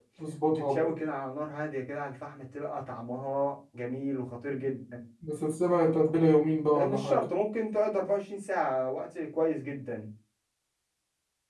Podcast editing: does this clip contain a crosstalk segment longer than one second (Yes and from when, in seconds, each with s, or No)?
No